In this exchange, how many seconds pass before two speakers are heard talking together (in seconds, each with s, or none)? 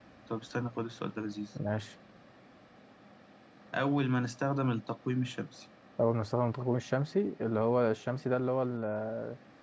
none